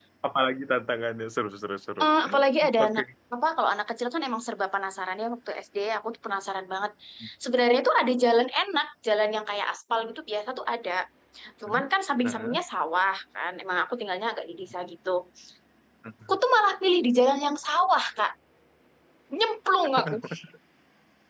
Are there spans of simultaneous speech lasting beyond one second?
No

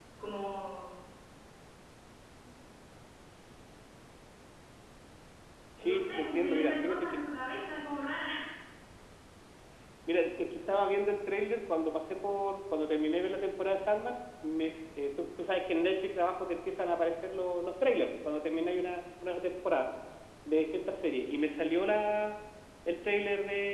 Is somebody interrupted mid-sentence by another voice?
Yes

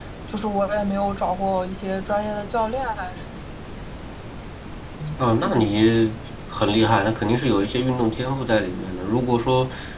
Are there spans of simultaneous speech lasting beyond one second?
No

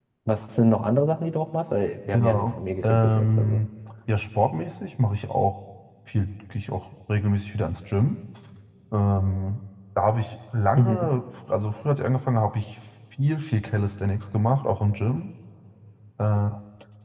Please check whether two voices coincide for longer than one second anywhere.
Yes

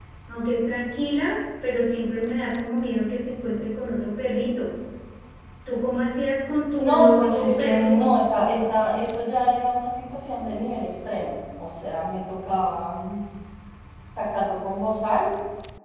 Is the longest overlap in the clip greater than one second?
Yes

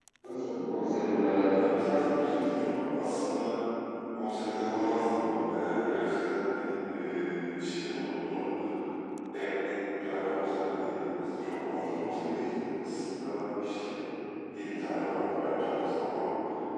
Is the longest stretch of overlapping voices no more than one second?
Yes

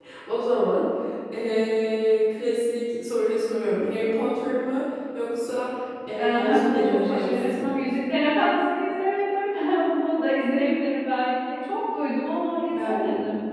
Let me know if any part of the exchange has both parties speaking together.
Yes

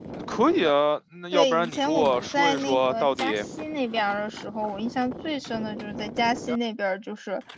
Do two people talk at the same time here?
Yes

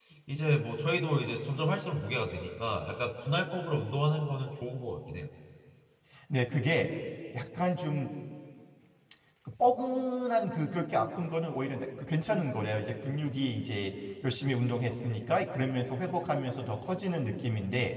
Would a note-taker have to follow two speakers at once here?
No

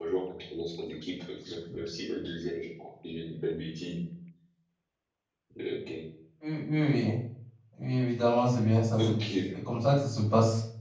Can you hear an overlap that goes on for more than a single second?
No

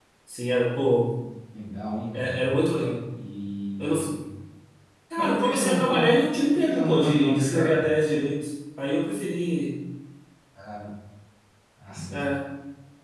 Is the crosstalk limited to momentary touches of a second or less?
No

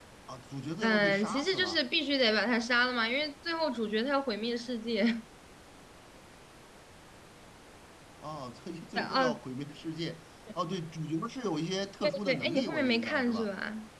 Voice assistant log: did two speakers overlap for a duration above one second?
Yes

